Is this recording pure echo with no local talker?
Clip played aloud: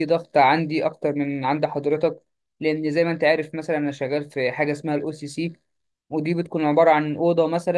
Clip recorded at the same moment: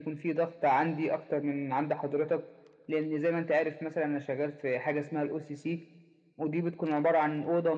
Yes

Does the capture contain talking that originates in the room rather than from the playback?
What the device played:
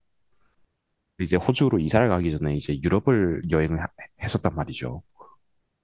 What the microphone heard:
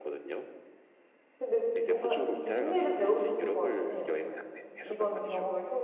Yes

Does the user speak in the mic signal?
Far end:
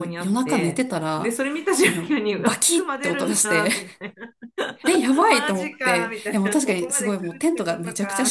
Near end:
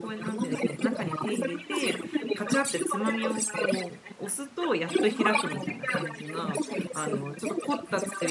Yes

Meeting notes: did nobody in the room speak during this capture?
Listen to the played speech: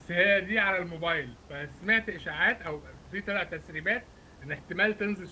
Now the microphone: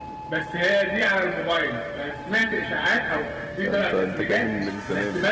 No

